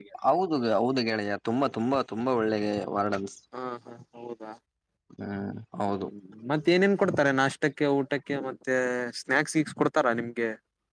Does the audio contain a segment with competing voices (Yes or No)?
No